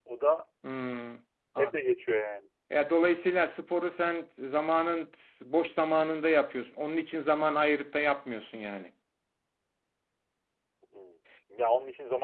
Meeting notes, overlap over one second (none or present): none